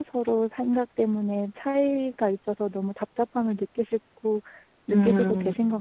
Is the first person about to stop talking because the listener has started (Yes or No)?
Yes